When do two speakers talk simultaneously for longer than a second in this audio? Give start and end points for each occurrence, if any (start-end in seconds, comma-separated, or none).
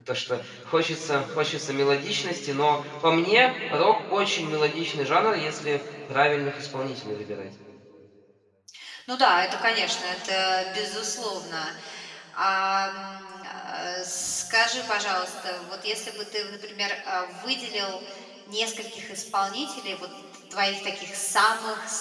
none